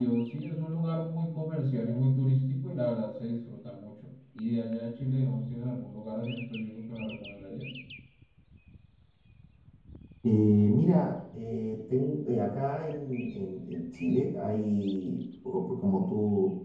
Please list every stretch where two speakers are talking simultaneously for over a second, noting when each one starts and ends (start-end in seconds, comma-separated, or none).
none